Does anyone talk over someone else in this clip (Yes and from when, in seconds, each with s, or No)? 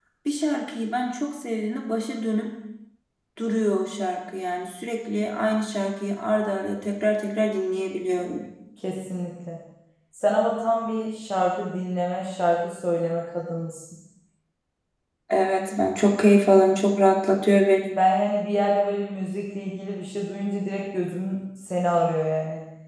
No